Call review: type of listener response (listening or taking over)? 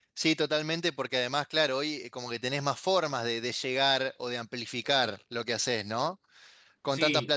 listening